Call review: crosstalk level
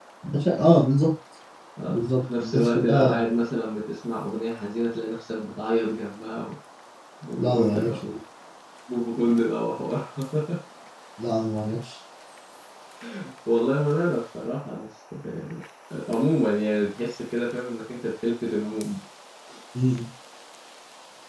present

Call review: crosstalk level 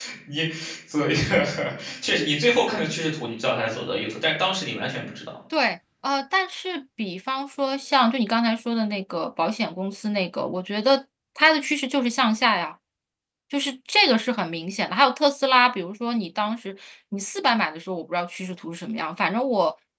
none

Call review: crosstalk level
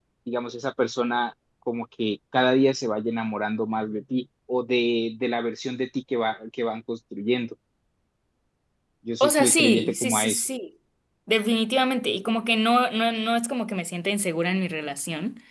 present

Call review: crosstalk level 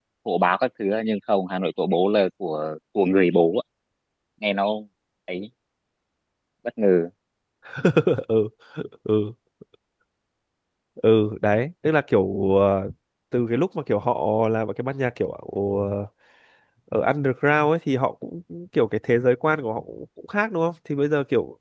none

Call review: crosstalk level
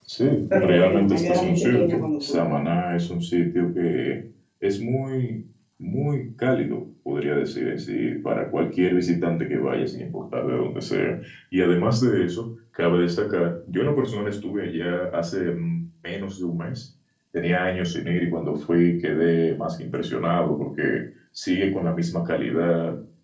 present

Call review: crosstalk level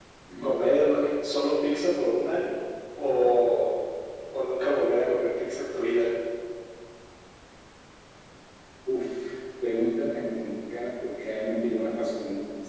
none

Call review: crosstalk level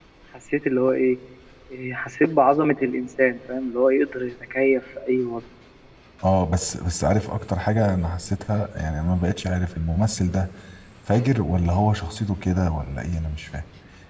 none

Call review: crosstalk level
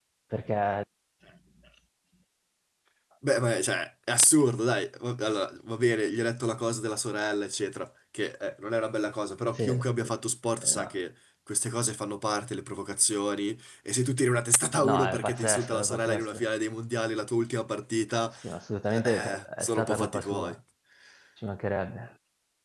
present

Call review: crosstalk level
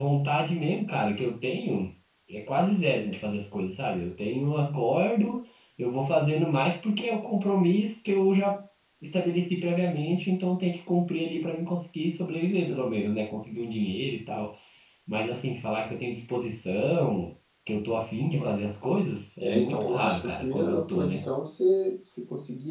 present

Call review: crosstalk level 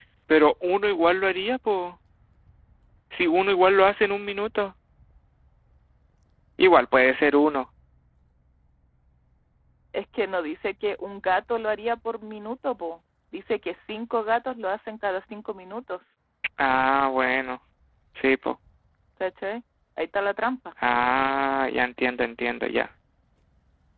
none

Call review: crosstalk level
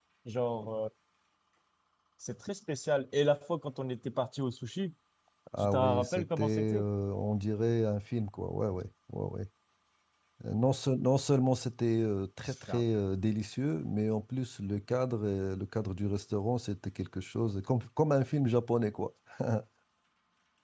present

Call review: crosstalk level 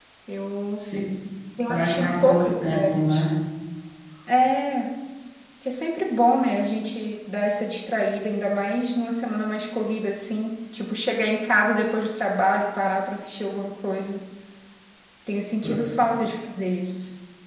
present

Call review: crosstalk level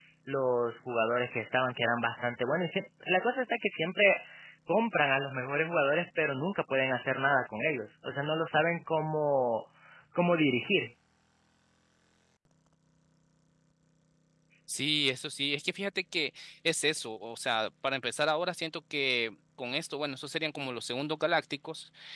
none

